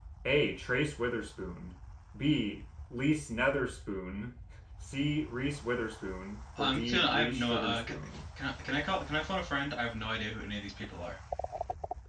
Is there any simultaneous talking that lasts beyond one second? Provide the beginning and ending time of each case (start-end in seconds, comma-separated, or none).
6.6-7.9